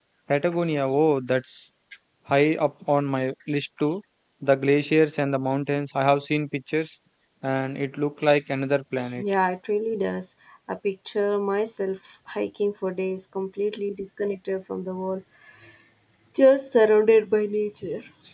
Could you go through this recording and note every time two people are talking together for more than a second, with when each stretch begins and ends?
none

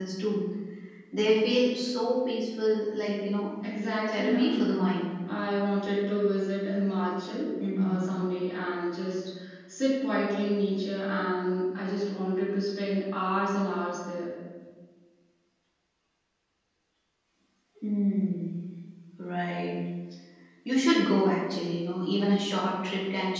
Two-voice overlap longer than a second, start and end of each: none

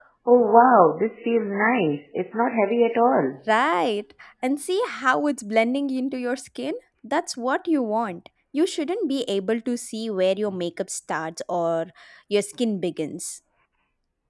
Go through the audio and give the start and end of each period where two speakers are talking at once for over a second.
none

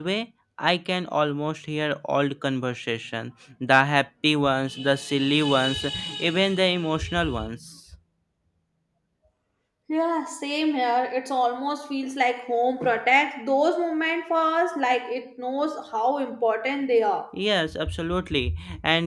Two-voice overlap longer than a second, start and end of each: none

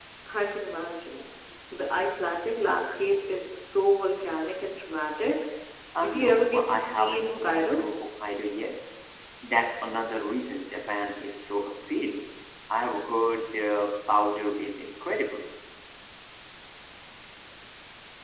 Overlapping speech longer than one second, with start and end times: 6.0-7.8

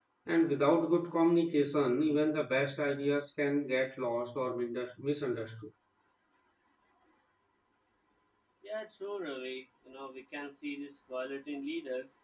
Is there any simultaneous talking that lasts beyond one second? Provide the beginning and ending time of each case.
none

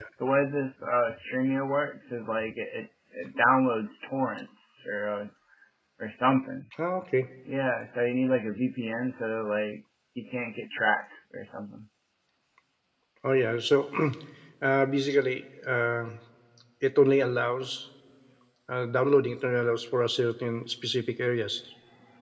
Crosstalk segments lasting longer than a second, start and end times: none

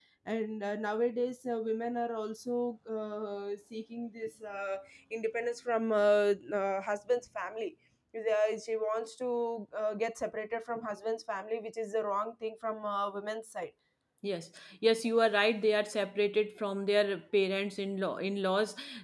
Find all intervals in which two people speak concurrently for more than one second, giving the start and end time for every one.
none

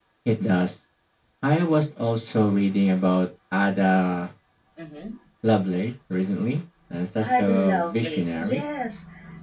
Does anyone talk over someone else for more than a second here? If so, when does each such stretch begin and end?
7.2-8.6

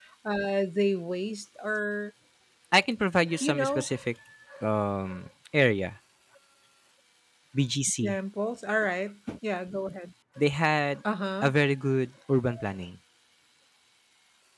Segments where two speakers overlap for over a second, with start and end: none

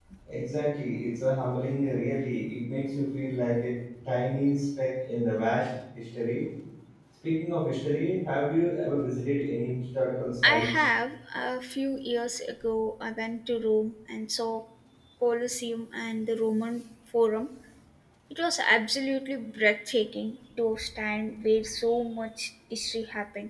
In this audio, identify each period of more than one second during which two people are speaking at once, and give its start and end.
none

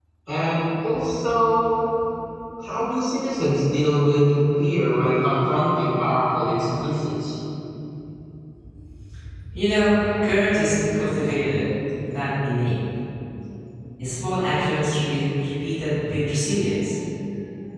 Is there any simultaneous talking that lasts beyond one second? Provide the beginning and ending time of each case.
none

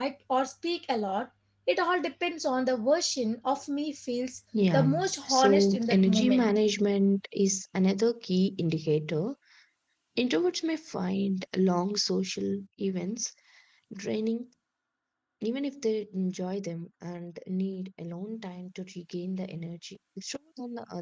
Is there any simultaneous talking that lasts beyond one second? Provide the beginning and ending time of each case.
4.7-6.5

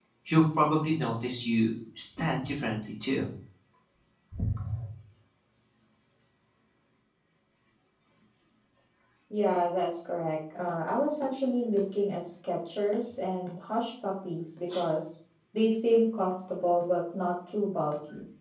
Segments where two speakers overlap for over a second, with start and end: none

